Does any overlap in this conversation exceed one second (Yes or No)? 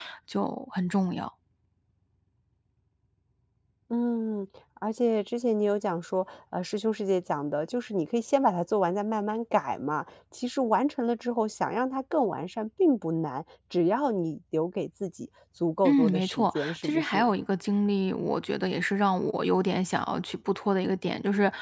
Yes